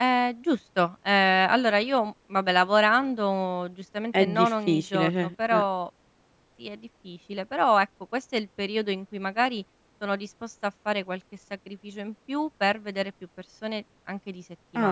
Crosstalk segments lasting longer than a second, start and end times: 4.2-5.6

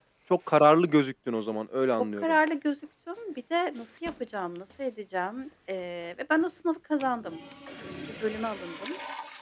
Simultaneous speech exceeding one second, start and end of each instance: none

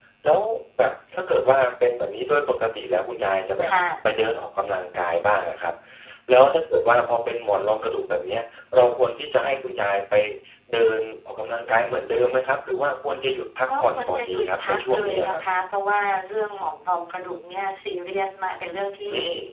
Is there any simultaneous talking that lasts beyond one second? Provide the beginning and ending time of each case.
13.8-15.4

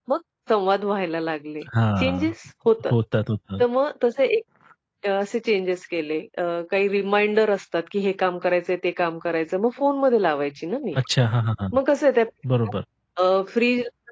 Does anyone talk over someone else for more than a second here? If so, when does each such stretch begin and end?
none

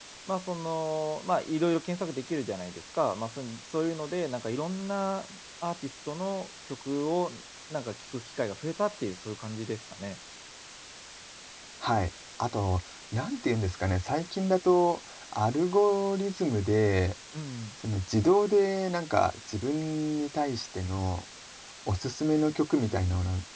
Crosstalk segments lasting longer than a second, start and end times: none

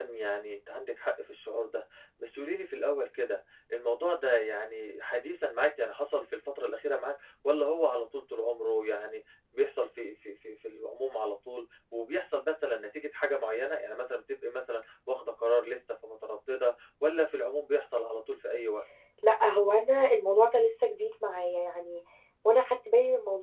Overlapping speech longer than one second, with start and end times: none

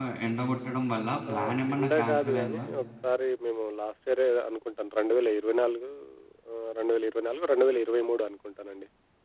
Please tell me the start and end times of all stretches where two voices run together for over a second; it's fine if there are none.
1.3-2.7

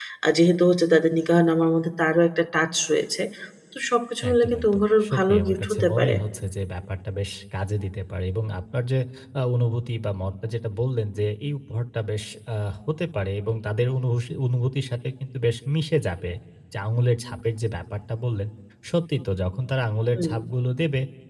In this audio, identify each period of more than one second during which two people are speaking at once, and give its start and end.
4.3-6.2

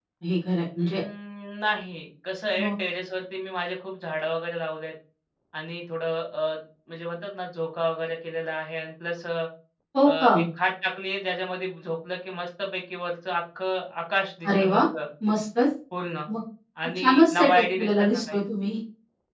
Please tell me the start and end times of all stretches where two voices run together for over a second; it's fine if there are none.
17.0-18.4

